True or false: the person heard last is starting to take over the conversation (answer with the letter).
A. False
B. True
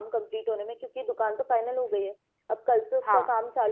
A